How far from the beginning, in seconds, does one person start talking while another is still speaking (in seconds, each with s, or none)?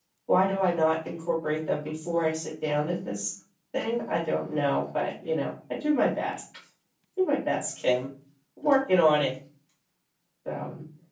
none